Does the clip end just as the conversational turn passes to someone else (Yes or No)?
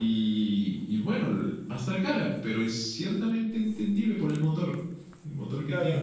Yes